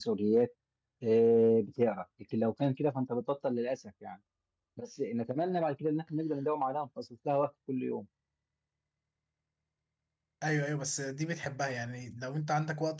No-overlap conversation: Yes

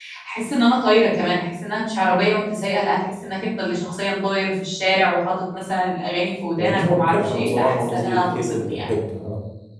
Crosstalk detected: Yes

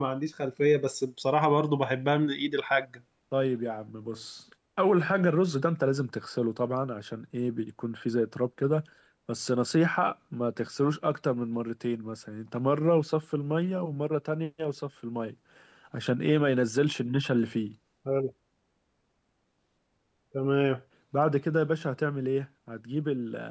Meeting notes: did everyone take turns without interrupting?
Yes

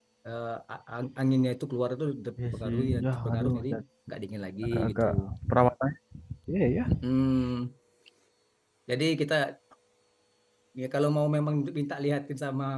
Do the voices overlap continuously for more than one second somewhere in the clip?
Yes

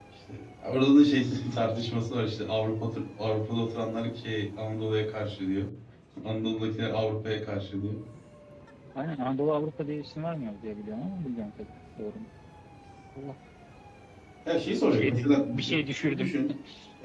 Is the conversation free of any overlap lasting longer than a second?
No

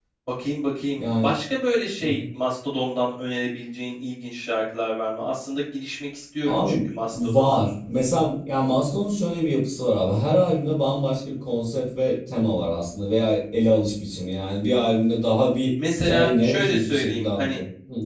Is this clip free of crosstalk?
No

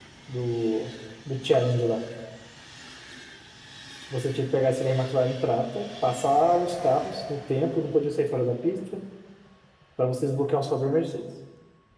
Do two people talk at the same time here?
No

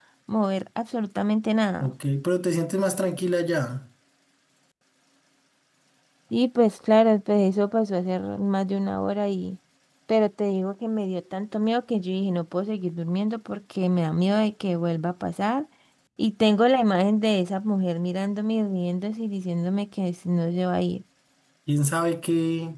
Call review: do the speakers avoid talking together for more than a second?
Yes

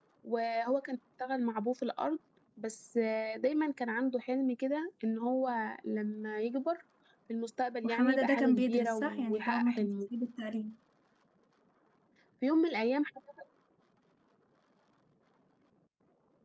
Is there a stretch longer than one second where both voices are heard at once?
Yes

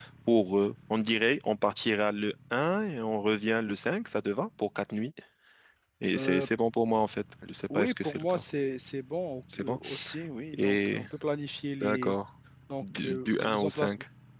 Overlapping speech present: Yes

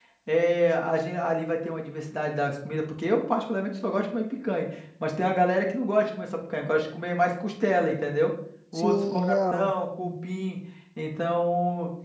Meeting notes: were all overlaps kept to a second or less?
No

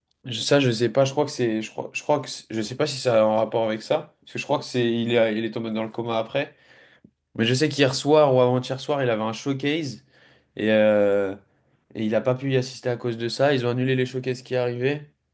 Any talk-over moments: No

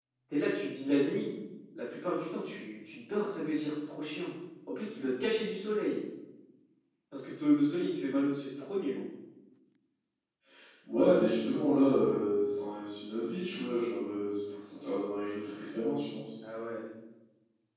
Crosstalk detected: No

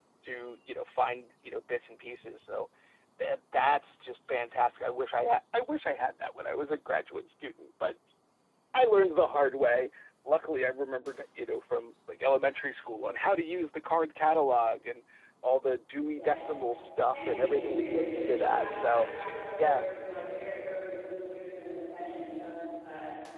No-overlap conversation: No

